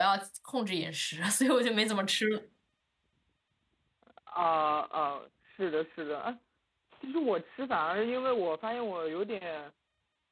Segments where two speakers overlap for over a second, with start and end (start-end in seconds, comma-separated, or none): none